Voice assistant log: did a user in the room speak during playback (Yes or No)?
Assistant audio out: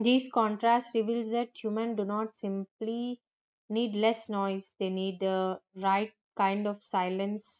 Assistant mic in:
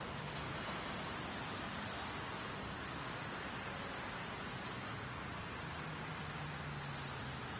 No